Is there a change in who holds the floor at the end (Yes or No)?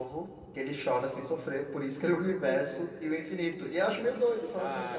Yes